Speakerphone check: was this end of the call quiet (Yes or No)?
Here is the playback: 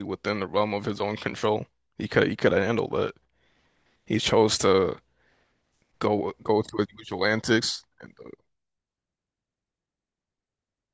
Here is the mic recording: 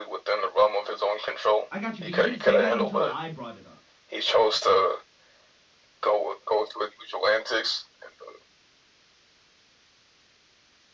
No